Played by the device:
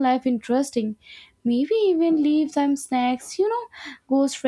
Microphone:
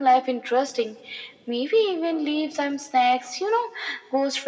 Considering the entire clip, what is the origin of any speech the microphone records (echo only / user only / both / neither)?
echo only